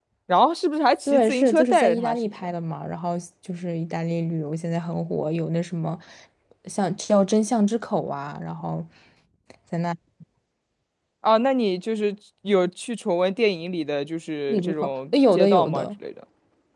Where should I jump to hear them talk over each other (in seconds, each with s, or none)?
1.1 s